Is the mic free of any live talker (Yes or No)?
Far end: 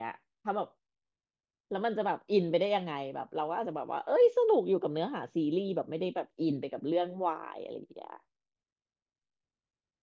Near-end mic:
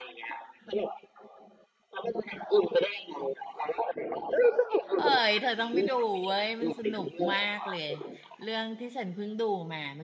No